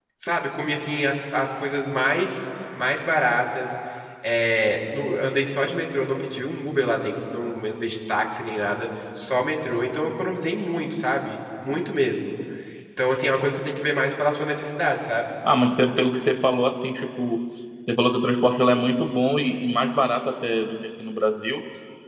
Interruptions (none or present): none